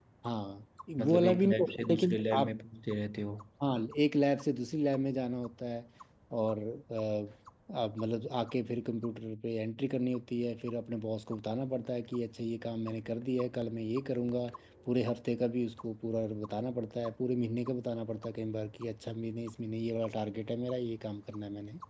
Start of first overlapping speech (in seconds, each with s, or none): 1.0 s